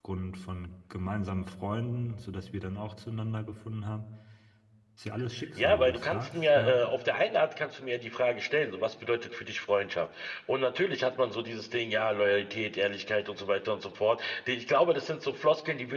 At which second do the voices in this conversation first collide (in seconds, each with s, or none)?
5.6 s